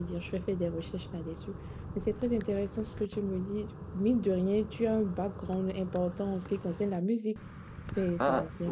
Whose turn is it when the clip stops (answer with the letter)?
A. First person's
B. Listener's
B